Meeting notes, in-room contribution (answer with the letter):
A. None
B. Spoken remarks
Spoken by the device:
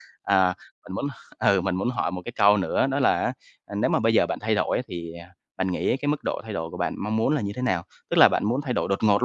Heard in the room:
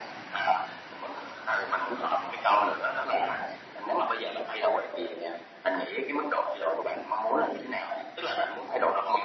A